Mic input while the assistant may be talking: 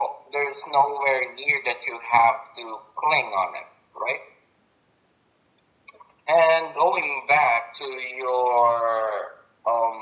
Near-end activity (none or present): none